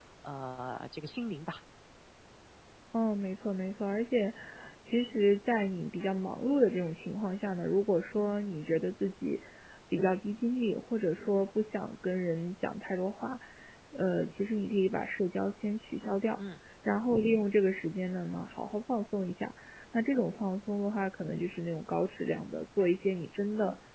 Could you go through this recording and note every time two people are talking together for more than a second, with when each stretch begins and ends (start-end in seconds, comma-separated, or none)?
none